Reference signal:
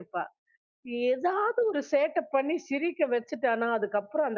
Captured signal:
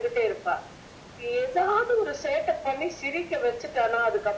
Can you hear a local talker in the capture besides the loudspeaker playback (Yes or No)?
No